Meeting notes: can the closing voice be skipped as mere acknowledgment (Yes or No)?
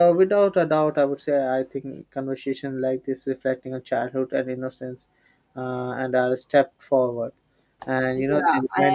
No